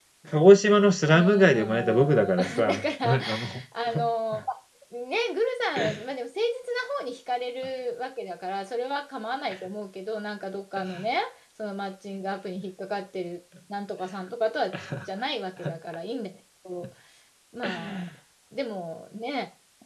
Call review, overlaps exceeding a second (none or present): present